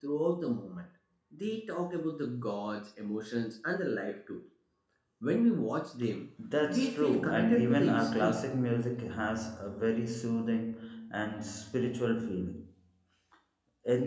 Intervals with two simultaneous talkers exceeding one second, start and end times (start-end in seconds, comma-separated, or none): 6.7-8.4